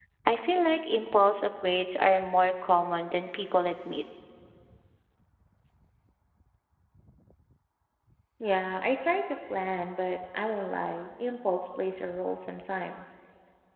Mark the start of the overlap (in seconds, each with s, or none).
none